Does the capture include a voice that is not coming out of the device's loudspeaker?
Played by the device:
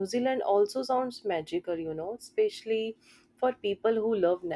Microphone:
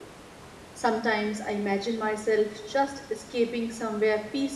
Yes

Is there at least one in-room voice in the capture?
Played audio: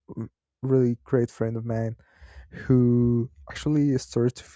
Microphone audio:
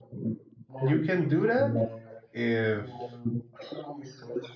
Yes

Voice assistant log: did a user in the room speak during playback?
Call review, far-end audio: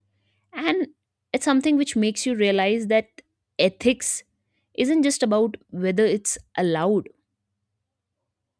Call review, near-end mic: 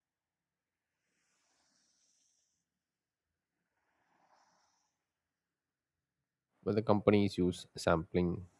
Yes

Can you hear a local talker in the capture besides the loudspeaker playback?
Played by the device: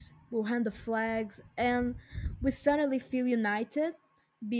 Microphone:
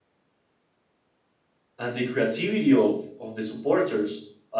Yes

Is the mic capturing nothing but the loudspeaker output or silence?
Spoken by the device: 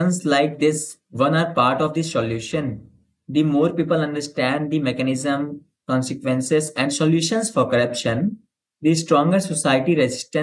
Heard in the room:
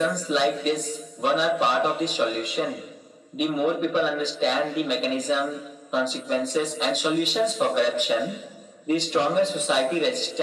Yes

